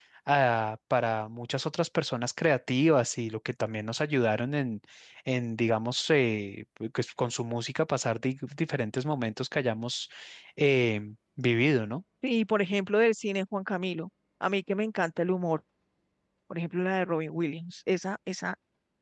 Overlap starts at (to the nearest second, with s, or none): none